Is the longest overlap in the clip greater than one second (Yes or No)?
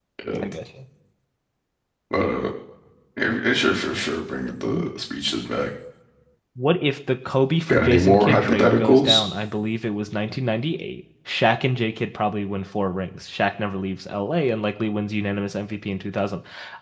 Yes